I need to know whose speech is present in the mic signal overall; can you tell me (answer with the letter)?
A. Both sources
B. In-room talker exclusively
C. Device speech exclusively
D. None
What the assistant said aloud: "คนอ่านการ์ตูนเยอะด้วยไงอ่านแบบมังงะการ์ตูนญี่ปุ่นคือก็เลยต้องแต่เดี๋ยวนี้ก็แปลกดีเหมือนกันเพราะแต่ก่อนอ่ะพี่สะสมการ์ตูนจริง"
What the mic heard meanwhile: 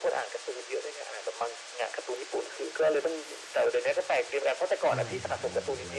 A